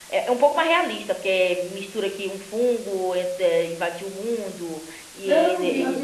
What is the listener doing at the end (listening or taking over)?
taking over